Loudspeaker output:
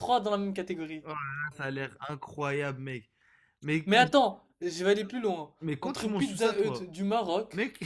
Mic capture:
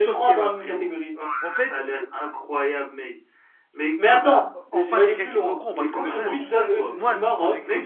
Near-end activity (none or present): present